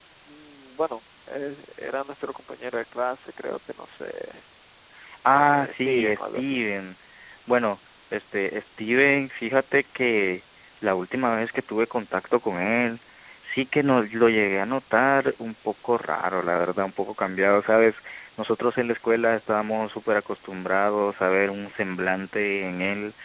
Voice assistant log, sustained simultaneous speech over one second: present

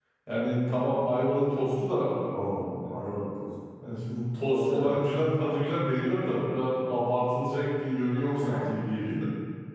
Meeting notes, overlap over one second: none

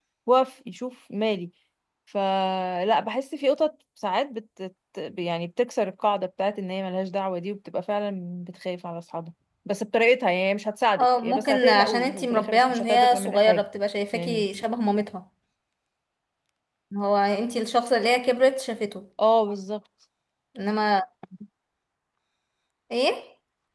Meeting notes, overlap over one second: present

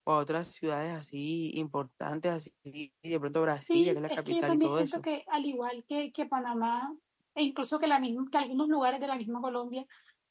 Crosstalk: present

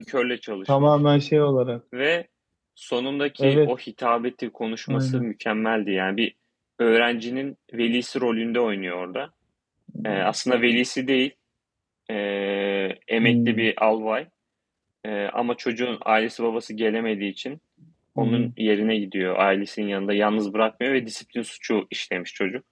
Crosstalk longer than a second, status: none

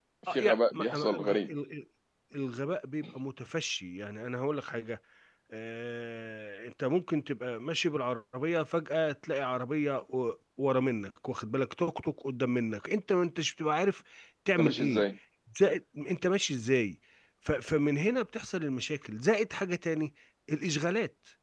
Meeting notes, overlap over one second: present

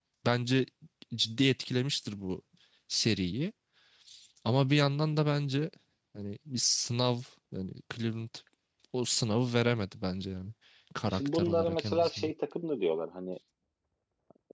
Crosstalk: present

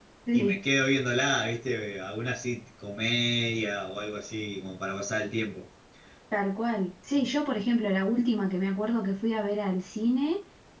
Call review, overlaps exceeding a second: none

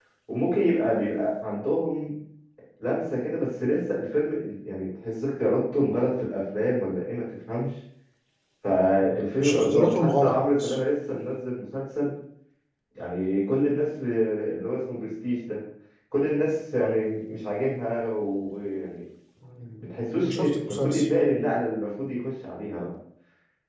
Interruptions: present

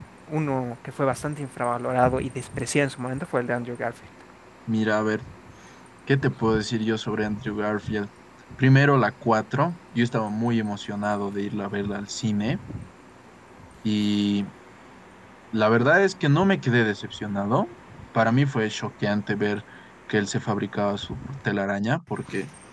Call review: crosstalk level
none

